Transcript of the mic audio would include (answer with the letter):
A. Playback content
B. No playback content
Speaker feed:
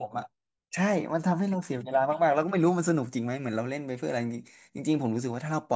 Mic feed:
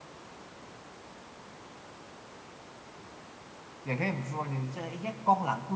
B